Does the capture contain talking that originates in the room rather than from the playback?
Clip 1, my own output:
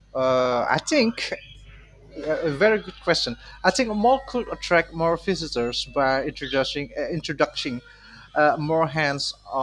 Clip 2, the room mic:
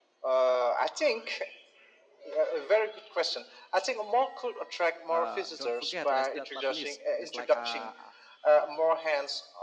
Yes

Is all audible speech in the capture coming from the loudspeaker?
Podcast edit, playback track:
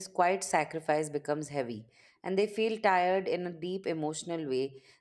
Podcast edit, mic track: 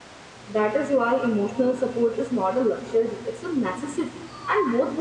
No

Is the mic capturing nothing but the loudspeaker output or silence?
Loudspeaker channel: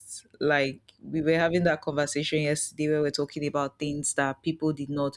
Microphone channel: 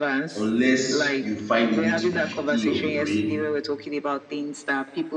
No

